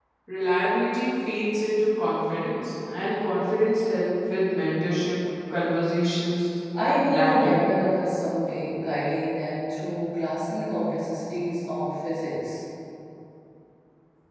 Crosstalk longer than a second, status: none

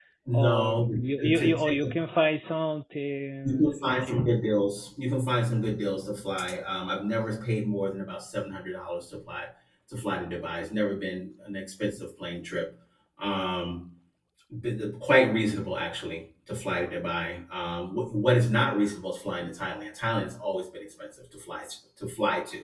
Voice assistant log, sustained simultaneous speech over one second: present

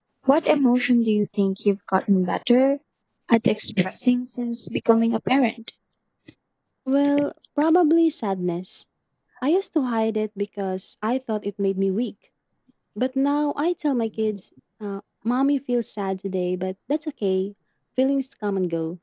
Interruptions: none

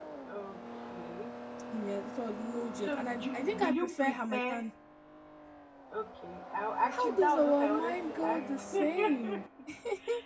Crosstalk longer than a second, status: present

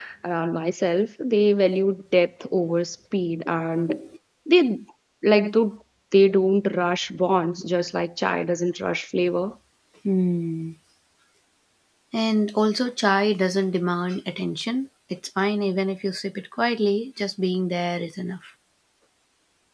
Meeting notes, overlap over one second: none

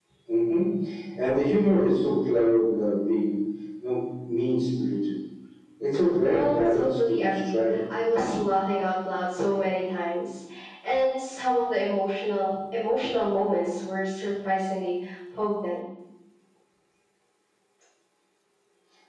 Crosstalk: present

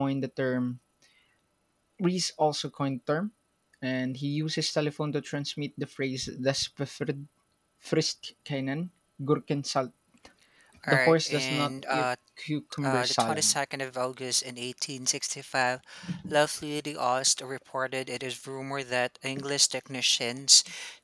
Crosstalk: present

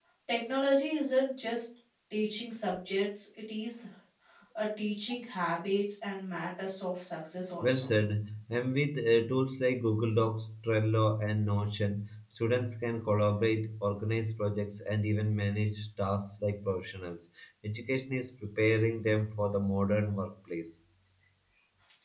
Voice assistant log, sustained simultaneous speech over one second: none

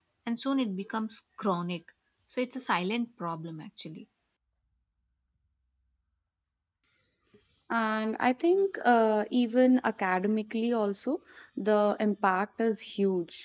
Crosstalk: none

